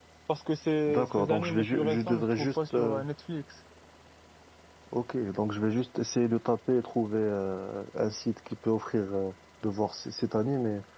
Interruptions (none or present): present